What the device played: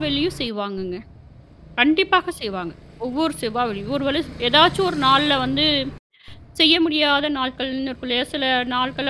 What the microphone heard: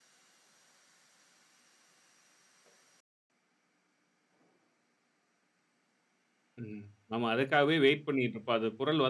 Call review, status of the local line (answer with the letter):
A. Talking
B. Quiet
A